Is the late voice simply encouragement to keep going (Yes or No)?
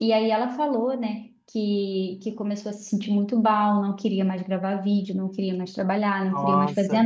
Yes